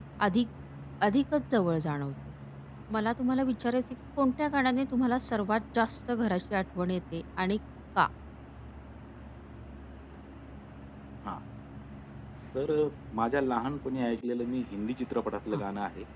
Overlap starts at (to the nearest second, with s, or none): none